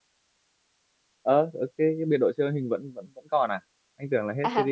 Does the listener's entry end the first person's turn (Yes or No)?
Yes